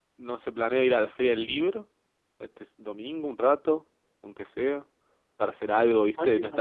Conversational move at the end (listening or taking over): taking over